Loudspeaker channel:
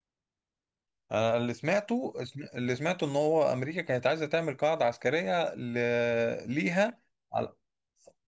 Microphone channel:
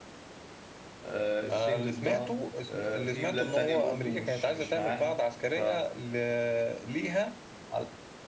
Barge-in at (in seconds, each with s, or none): 1.0 s